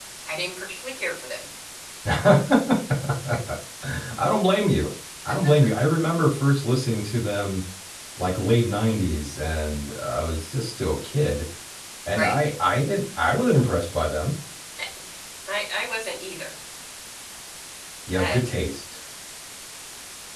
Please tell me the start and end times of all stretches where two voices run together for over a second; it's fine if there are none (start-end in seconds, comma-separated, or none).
none